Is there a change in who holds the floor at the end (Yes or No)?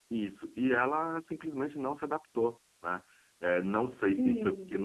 No